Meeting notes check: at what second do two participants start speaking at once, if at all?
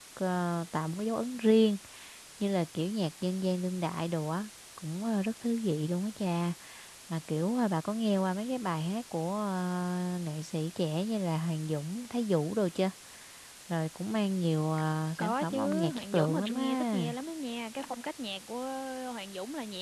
15.2 s

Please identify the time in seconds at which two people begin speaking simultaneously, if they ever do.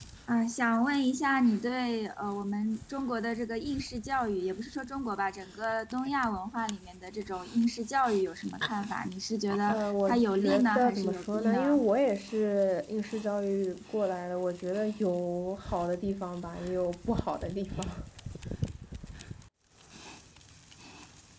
9.7 s

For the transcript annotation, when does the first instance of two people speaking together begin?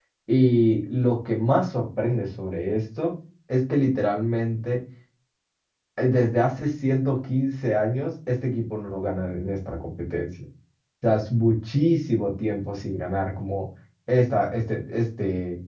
none

